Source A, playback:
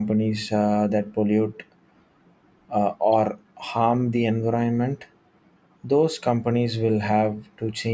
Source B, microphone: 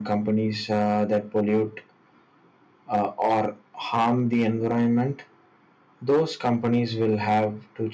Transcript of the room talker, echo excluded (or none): none